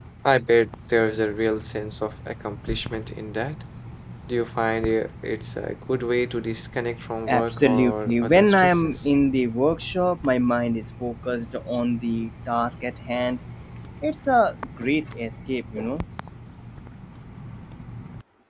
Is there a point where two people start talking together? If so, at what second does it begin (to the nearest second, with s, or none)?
7 s